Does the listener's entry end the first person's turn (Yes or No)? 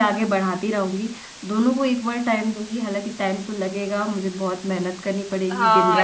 Yes